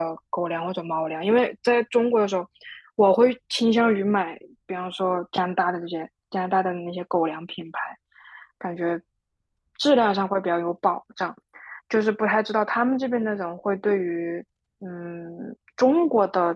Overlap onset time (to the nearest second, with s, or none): none